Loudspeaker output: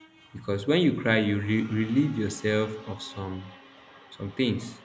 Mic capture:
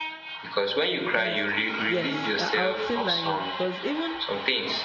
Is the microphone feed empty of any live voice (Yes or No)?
No